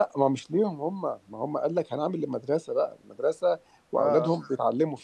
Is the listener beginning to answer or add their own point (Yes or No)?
No